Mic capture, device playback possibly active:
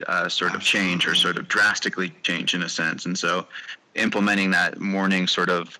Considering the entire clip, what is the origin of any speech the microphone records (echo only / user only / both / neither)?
both